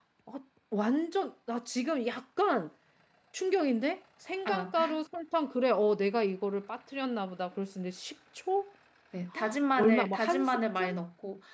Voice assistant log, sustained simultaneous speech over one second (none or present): present